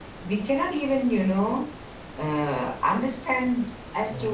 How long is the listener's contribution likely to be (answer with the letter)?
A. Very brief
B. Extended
A